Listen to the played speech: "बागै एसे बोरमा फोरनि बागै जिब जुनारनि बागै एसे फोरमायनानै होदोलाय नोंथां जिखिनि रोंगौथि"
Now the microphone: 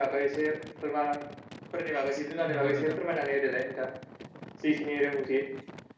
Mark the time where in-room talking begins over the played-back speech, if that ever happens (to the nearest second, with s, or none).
3 s